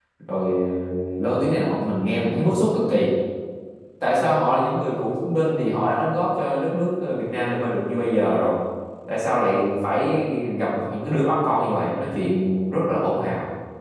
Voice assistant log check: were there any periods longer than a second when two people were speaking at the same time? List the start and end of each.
none

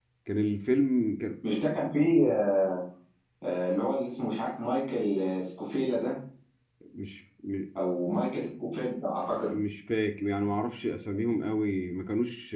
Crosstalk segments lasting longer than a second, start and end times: none

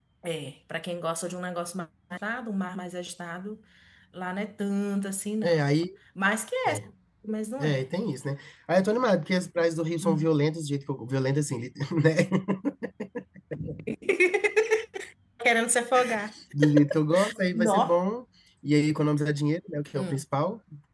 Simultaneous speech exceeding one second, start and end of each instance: none

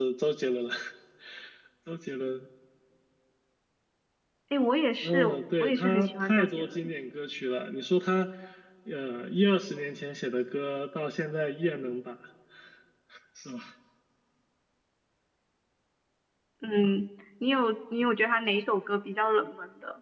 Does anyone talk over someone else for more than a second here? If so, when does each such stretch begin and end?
5.0-6.8

